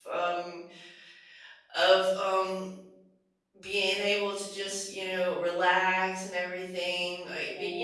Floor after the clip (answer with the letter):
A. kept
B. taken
A